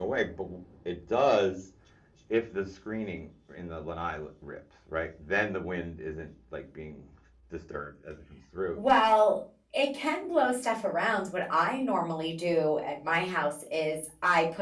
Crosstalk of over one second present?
No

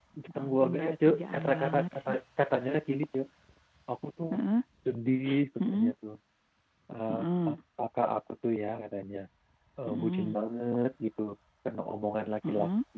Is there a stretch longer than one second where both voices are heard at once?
Yes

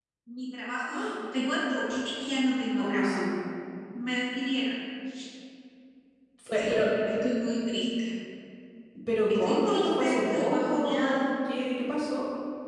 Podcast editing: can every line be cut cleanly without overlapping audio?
No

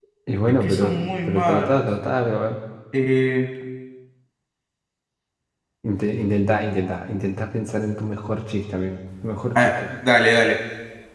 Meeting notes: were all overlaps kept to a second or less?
No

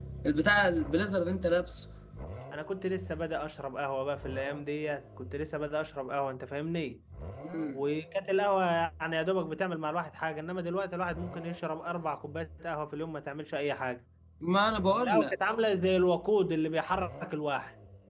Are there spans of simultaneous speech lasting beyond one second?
No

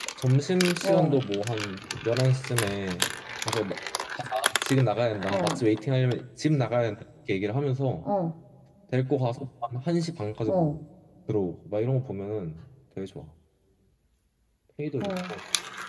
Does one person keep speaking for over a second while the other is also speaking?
No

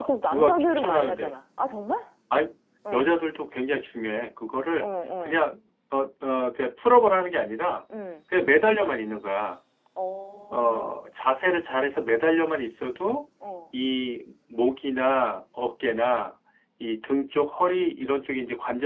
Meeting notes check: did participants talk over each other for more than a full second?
Yes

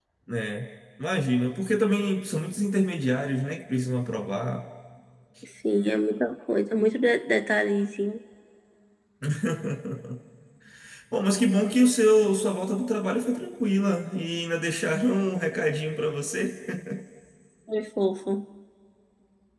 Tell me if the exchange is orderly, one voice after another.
Yes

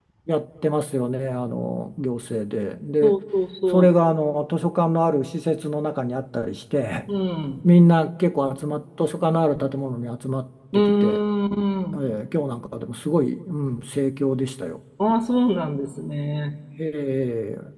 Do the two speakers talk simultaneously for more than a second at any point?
No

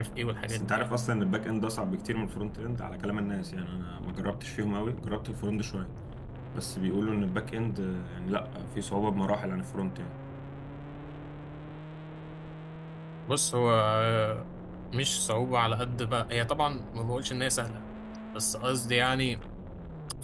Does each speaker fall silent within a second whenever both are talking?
Yes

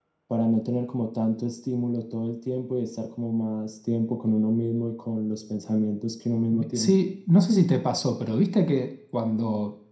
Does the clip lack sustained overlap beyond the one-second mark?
Yes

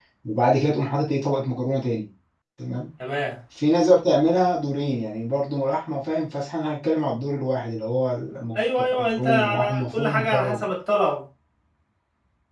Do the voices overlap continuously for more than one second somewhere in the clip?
Yes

